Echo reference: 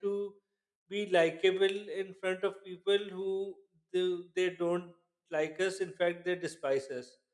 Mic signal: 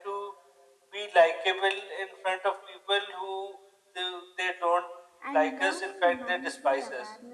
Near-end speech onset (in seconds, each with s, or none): 5.2 s